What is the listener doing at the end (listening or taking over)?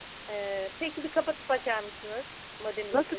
taking over